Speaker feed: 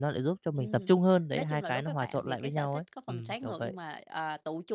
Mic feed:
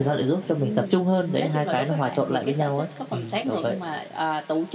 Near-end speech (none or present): none